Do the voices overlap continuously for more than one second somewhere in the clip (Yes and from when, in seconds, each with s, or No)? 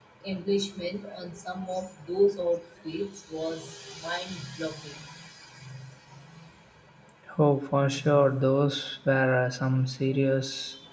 No